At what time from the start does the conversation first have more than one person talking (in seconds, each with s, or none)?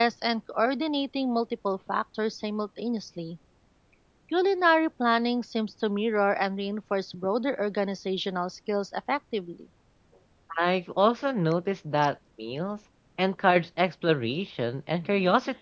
none